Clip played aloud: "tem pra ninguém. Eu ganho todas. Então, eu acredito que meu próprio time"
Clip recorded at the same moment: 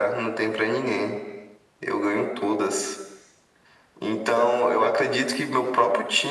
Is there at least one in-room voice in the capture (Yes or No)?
No